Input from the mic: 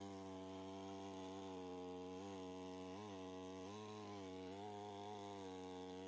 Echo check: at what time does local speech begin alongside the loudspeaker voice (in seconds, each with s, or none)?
none